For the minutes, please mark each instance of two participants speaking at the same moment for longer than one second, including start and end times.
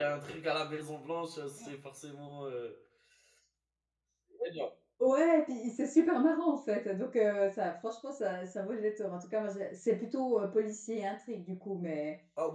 none

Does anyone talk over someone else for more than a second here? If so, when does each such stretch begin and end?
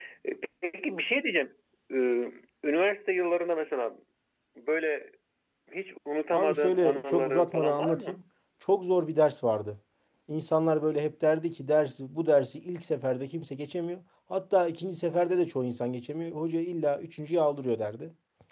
6.3-8.2

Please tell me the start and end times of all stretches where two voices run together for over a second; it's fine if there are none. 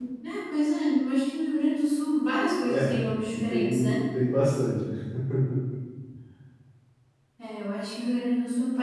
2.7-4.0

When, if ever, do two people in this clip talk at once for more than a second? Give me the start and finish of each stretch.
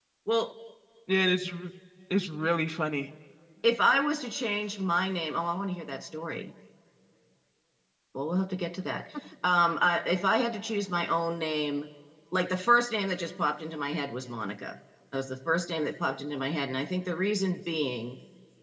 none

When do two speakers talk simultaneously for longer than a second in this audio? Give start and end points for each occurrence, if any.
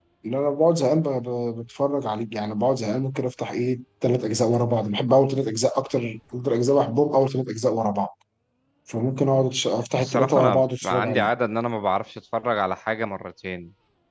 10.0-11.3

